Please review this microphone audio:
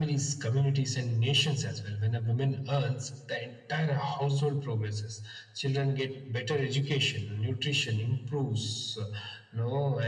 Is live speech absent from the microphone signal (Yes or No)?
Yes